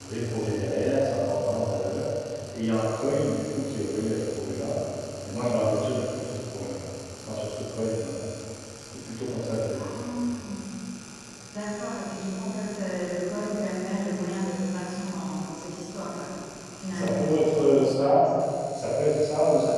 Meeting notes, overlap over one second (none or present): present